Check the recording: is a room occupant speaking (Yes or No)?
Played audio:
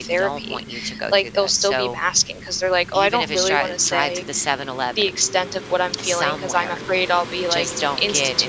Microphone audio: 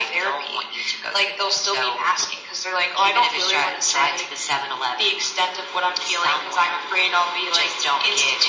No